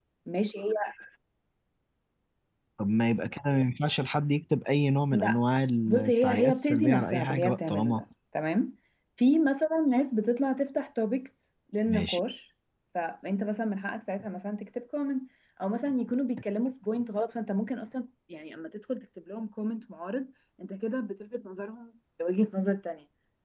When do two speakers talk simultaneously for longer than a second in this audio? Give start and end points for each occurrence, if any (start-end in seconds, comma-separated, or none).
5.9-8.0